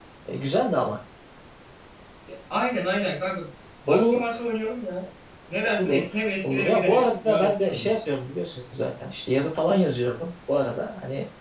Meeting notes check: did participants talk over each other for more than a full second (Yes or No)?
Yes